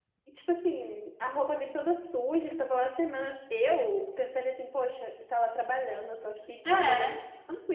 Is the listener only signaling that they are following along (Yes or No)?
Yes